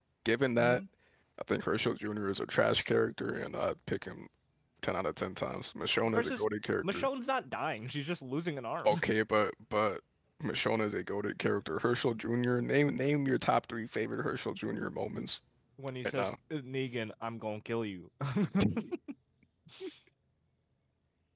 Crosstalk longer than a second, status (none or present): none